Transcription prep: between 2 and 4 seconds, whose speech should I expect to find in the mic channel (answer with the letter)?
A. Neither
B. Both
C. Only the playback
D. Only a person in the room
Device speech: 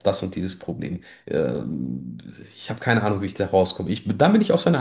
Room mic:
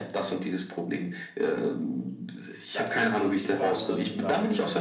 B